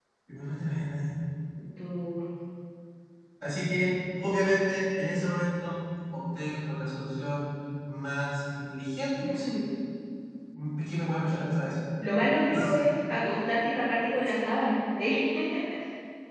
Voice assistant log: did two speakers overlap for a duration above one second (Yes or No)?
No